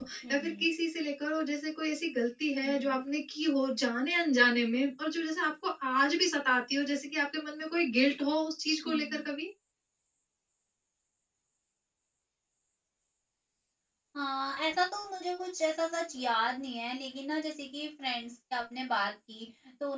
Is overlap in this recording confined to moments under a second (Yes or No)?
Yes